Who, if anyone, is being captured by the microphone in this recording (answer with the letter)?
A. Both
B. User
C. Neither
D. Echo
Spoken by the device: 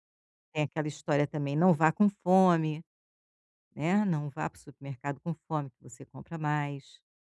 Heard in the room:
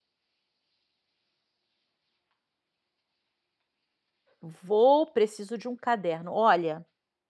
B